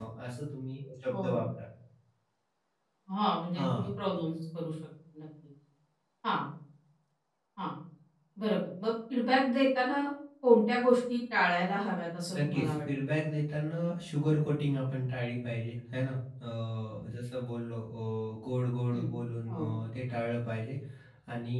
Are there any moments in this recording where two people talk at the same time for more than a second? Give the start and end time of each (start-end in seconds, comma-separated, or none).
none